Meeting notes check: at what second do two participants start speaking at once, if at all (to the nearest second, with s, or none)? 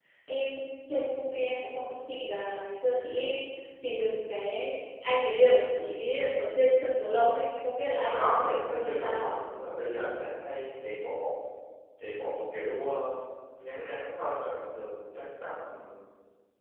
8 s